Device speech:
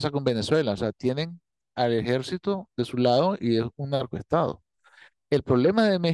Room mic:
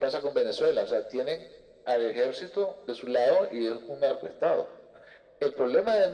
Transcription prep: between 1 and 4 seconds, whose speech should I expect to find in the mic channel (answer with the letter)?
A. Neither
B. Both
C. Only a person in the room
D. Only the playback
D